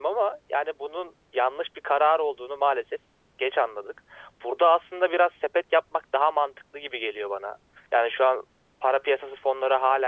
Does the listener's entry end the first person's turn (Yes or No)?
Yes